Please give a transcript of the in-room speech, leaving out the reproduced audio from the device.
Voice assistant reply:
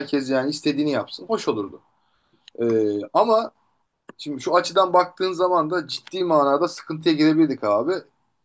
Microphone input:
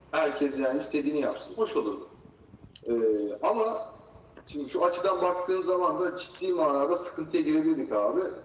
none

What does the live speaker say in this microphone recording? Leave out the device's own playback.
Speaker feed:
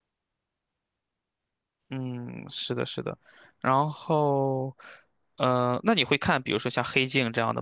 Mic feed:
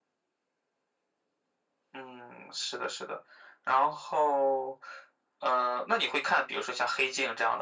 none

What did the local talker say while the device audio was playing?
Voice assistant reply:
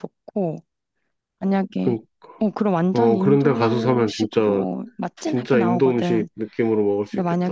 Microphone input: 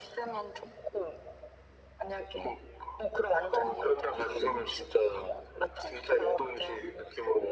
none

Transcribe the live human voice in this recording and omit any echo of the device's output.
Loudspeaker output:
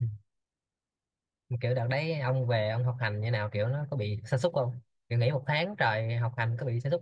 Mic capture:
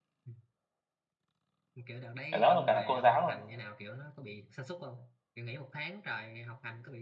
cả lớp và cả cô giáo luôn

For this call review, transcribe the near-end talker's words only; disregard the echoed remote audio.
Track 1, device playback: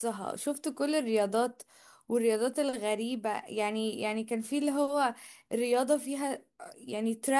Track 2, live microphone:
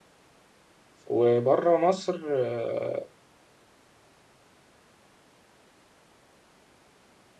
وبره مصر آه،

